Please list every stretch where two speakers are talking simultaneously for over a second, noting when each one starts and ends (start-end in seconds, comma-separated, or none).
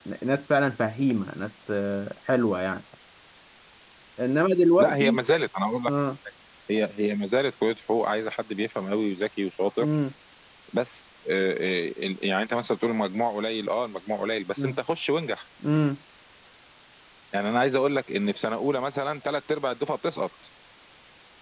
none